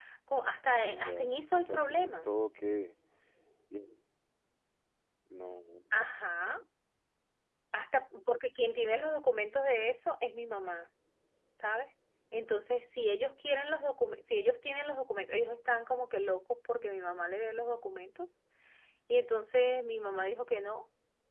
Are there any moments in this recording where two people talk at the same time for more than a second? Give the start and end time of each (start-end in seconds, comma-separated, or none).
0.7-2.3